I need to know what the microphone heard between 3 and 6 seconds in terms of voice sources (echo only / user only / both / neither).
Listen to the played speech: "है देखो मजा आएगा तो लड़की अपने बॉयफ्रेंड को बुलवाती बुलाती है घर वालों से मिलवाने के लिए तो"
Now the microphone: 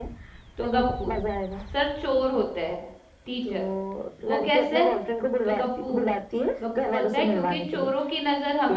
both